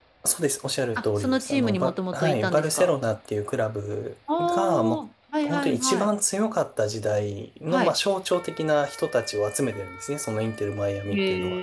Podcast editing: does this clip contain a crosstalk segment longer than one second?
Yes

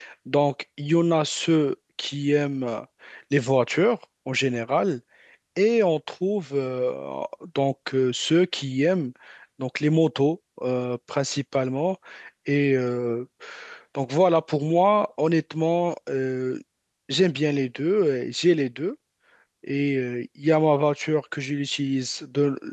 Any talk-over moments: No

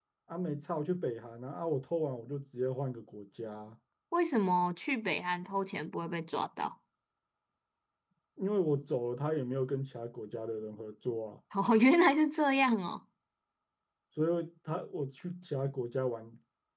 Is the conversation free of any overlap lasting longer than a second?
Yes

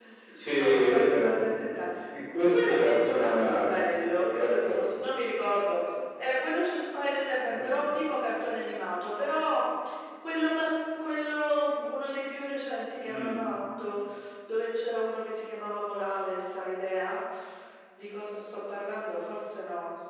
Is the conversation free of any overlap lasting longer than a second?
No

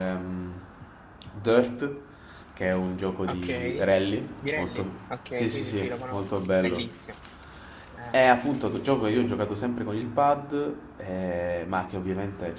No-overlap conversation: No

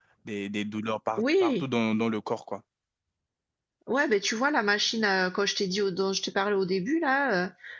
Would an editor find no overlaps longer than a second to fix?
Yes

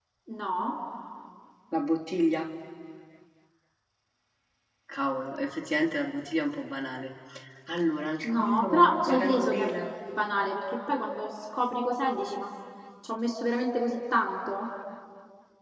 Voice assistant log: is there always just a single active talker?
No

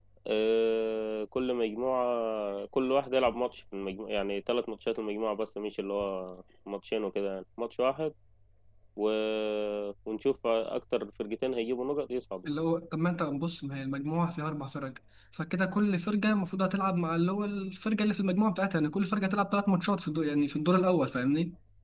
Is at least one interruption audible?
No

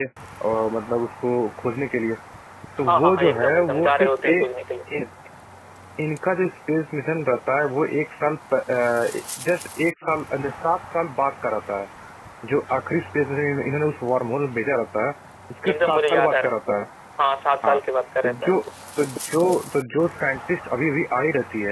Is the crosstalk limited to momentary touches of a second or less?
No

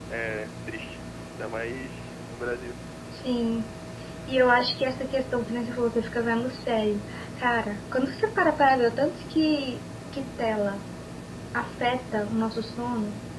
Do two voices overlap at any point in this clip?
No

